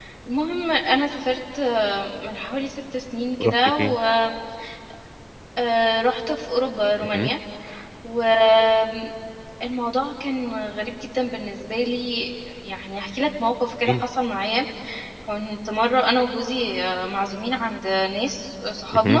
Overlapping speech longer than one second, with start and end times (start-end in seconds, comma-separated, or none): none